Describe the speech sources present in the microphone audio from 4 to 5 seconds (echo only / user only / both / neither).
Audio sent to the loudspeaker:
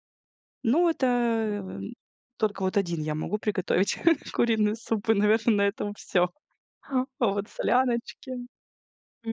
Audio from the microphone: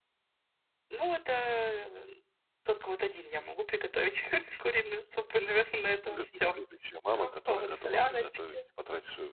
echo only